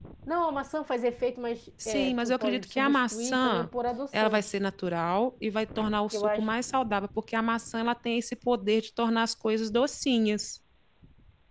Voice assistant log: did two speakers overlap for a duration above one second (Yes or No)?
Yes